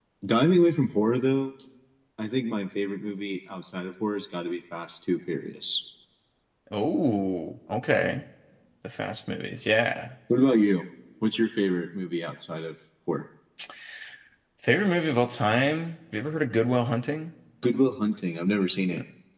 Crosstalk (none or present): none